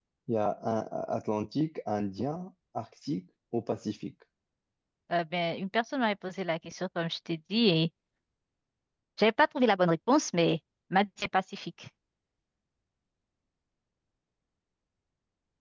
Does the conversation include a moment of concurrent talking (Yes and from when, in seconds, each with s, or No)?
No